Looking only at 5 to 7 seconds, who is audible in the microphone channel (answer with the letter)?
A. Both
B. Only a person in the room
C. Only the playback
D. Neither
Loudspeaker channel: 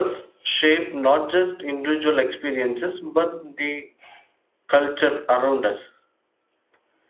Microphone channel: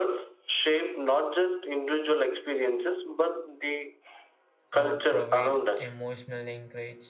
A